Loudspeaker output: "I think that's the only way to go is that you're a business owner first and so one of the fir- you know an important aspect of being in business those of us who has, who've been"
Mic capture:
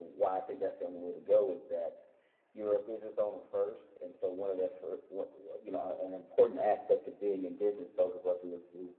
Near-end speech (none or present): none